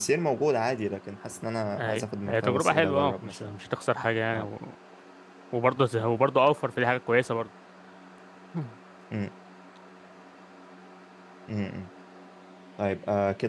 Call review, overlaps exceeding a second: present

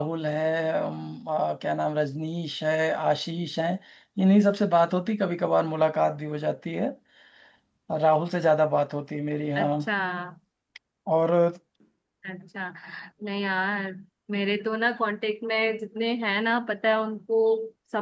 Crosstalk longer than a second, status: none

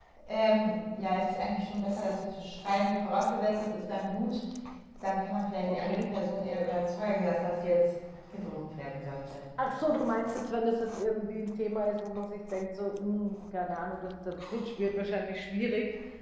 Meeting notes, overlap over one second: none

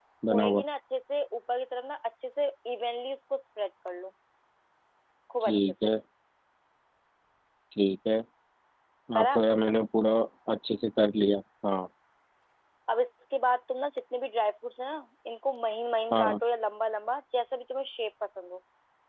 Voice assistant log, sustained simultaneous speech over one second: none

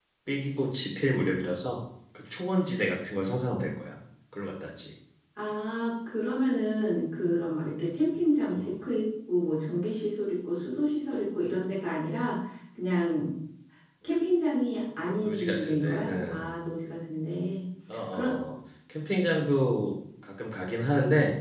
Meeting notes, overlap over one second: present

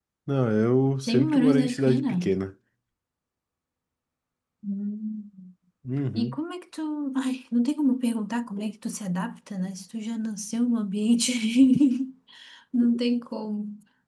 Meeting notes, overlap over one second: present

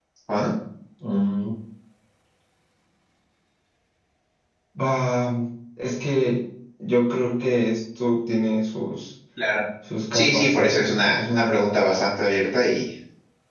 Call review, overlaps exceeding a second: present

